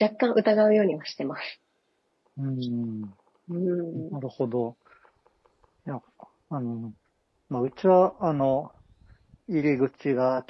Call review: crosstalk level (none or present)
none